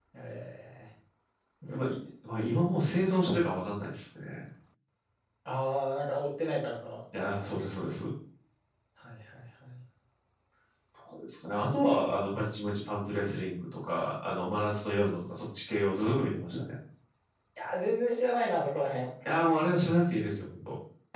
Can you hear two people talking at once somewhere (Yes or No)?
No